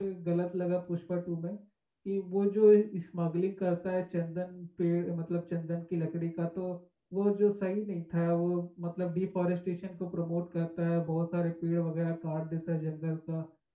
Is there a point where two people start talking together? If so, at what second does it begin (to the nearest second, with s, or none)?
none